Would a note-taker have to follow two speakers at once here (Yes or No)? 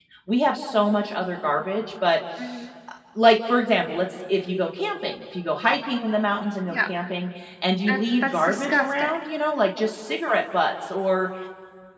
Yes